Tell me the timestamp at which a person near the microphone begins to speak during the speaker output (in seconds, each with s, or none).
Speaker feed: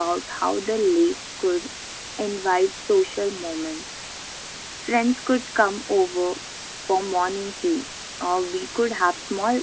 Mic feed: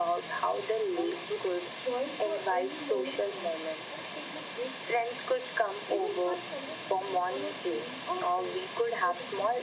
0.8 s